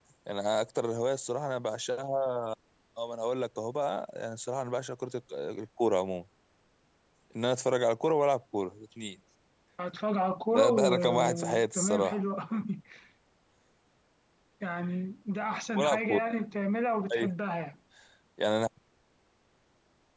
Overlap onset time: 10.5 s

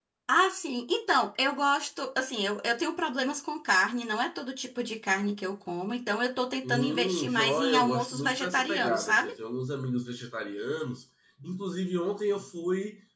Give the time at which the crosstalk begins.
6.6 s

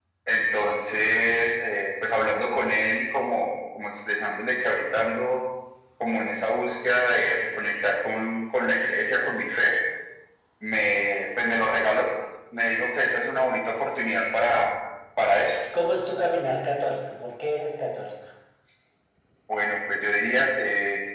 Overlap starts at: none

